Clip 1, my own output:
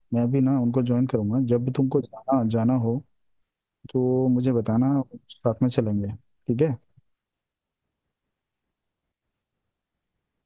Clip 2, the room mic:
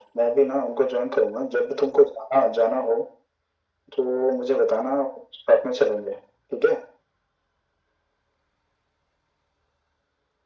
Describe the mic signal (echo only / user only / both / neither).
echo only